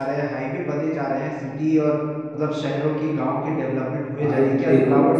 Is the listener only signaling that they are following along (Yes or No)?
No